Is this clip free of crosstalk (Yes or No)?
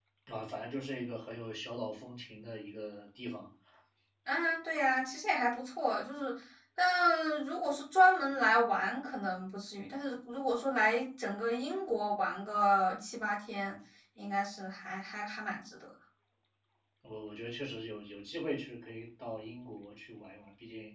Yes